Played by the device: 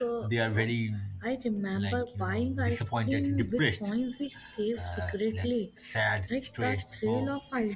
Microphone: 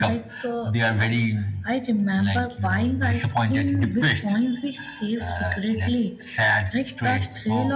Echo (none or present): present